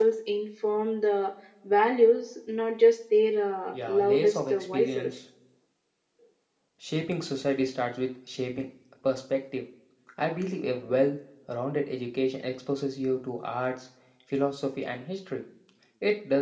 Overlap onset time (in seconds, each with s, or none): 3.7 s